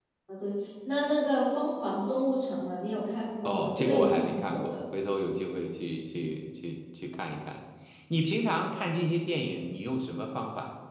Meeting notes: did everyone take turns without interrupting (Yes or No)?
No